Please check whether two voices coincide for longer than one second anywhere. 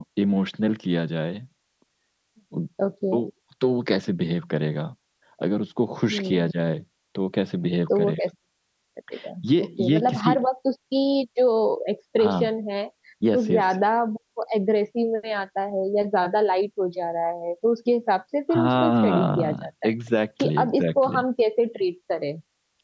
Yes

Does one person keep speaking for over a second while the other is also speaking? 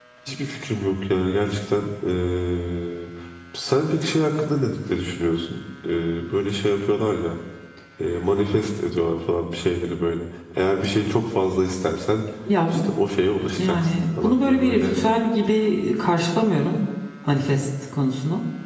Yes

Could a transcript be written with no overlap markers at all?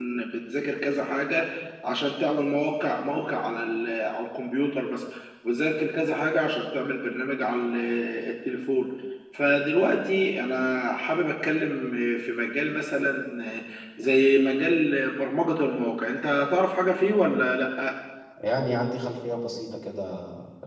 Yes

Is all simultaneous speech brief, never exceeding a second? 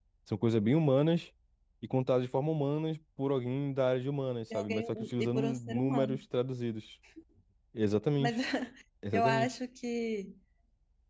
No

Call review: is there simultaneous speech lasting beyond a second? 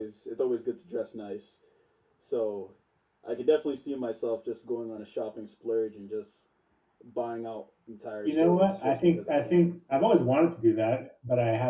Yes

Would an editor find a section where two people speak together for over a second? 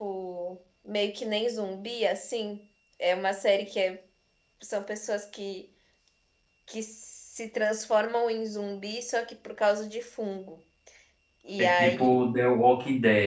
No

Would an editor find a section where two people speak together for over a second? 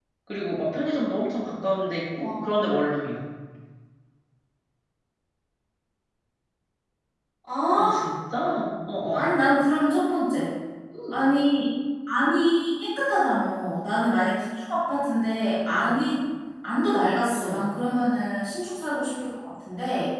No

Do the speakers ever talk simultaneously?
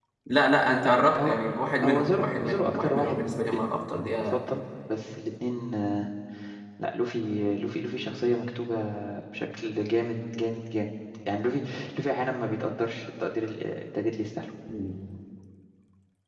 Yes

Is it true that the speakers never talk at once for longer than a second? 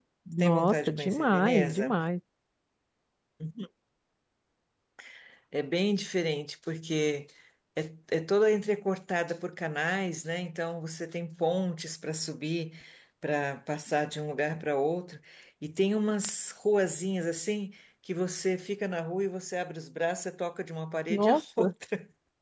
No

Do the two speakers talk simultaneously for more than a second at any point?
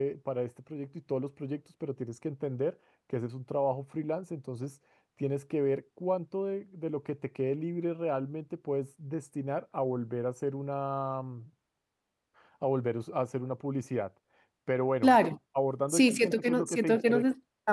Yes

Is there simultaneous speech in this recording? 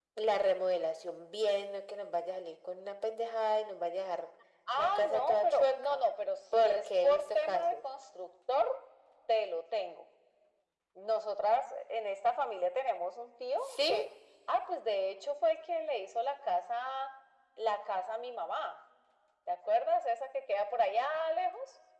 Yes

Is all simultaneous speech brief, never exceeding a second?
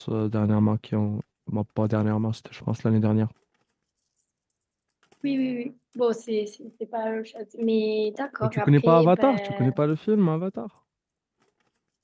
No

